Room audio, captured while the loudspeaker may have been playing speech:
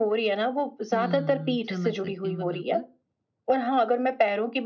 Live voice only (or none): हुँ, समझ सकती हूँ मैं बिल्कुल।